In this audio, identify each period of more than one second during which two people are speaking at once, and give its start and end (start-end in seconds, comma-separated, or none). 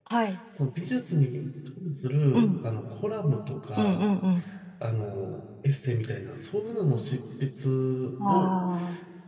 none